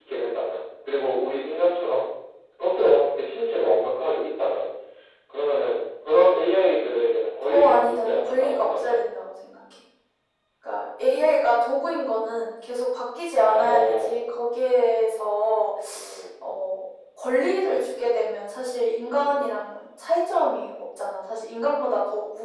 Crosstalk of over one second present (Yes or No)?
Yes